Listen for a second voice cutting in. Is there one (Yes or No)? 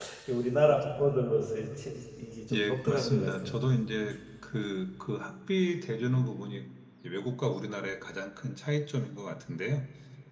Yes